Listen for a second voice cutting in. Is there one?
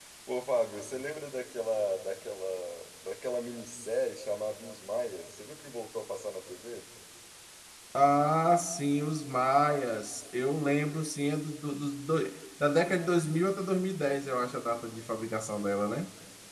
No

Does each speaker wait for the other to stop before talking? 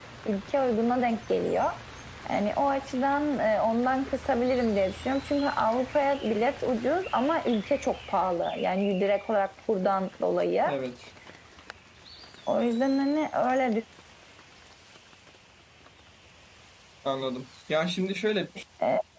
Yes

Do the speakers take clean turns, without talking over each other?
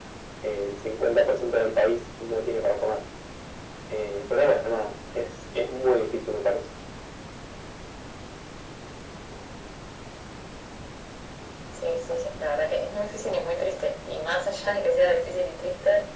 Yes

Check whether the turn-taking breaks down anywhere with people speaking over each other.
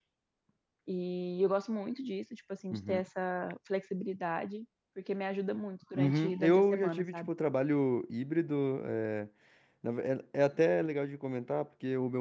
Yes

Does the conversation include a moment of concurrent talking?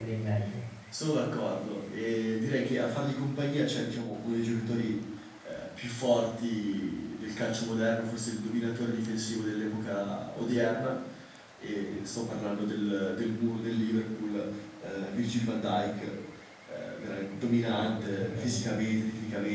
Yes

